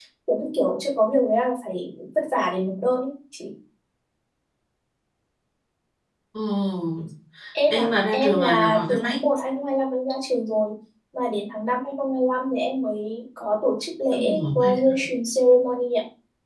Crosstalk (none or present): present